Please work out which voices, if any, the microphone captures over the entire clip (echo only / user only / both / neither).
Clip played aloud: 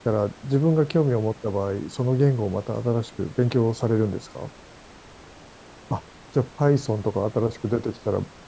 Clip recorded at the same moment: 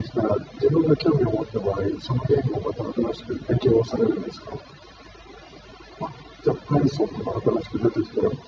echo only